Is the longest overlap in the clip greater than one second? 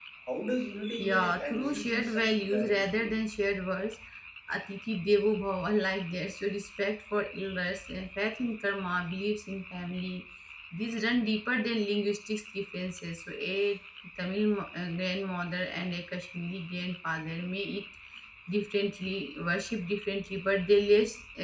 Yes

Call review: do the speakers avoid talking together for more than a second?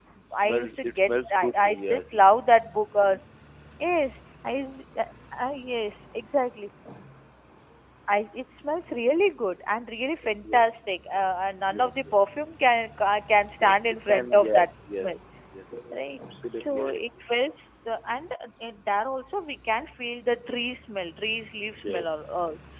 No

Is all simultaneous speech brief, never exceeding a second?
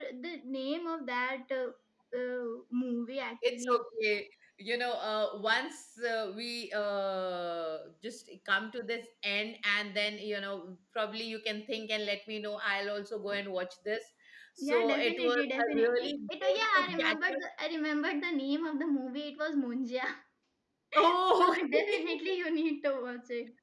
No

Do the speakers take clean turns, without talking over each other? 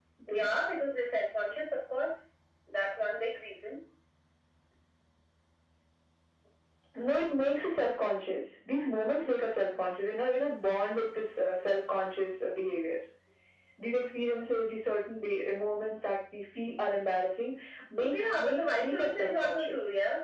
No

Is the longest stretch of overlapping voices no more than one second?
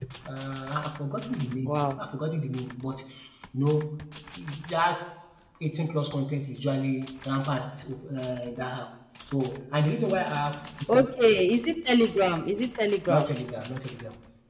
Yes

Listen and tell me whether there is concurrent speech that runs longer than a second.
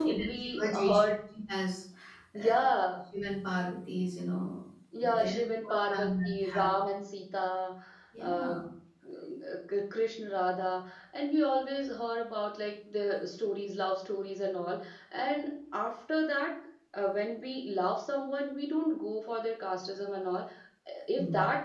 Yes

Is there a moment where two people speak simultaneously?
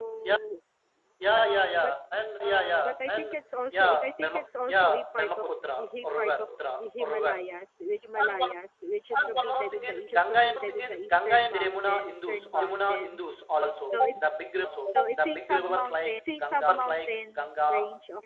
Yes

